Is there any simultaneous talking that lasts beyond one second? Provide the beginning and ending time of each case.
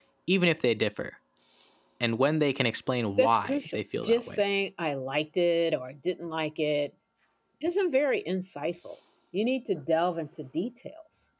3.2-4.4

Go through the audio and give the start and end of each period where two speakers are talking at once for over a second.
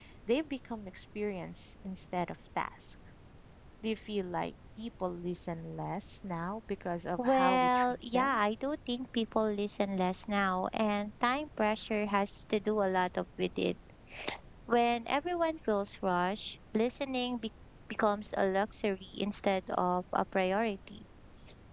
7.2-8.4

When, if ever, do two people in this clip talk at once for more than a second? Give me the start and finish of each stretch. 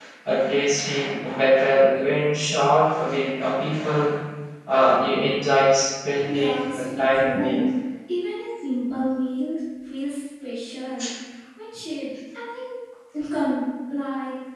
6.3-7.6

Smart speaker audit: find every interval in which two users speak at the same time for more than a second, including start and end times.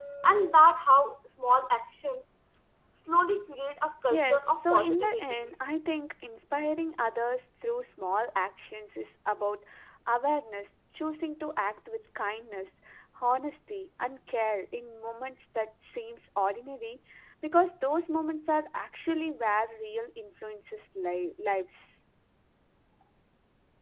4.1-5.4

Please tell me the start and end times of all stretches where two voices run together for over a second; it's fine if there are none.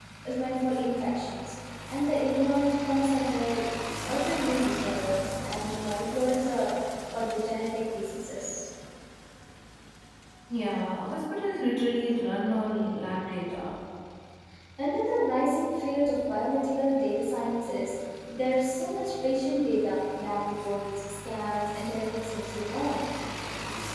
none

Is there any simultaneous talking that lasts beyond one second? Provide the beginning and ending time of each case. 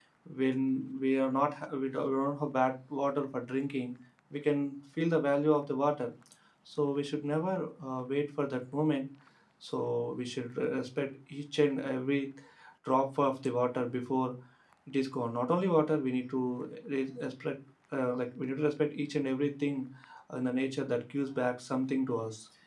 none

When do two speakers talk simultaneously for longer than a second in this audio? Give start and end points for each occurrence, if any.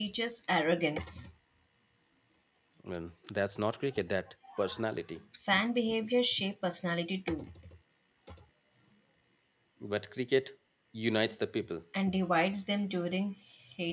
none

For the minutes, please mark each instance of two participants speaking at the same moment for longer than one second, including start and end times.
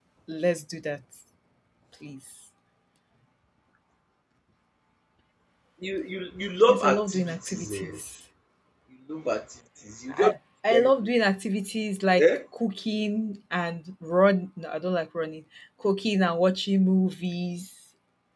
6.7-8.0

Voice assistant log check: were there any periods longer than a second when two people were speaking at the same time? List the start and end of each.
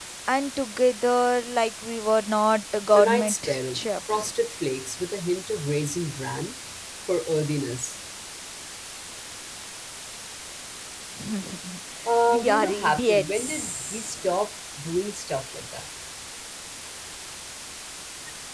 2.9-4.3, 12.3-14.3

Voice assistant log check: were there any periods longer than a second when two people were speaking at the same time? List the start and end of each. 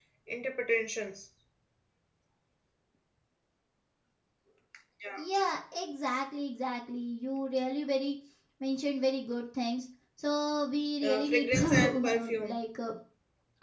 11.0-12.6

